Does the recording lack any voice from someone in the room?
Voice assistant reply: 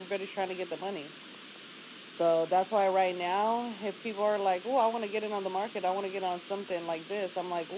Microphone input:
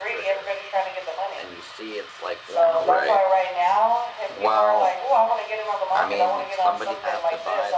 No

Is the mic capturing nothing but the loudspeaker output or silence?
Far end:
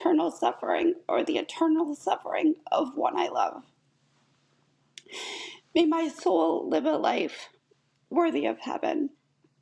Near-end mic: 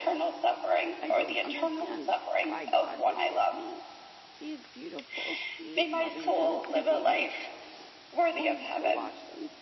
No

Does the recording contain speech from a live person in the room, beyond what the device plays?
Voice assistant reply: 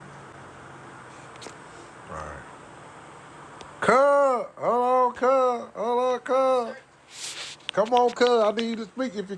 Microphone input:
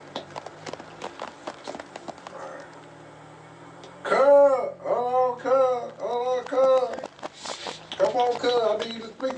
No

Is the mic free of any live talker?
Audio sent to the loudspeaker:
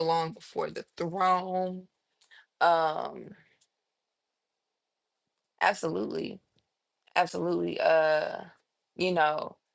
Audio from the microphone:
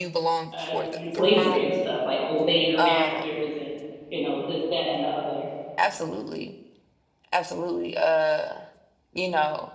No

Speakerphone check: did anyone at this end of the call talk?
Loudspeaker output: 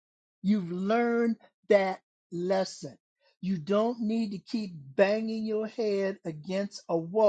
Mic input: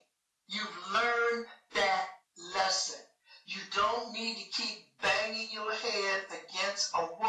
No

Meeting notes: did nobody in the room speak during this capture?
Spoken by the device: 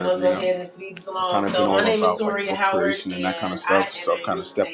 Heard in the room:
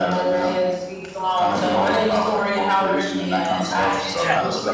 No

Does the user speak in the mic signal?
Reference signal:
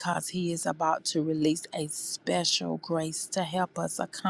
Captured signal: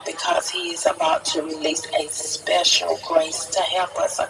No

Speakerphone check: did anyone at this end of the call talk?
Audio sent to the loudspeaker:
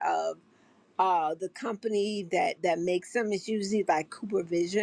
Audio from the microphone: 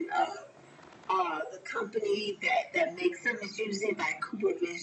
No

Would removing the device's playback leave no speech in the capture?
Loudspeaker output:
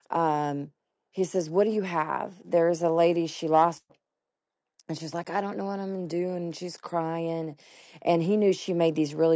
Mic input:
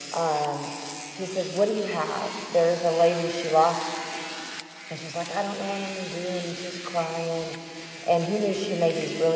Yes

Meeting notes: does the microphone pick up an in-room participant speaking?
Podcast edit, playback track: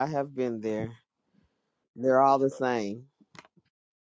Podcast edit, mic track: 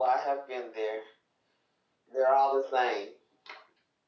No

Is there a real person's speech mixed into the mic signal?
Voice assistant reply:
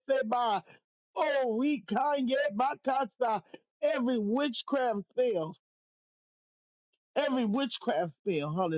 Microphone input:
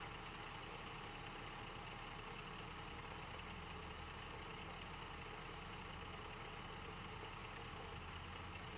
No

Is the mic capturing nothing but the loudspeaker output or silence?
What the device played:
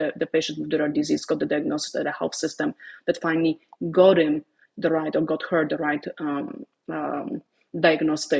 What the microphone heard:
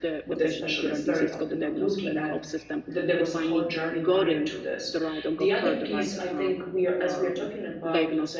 No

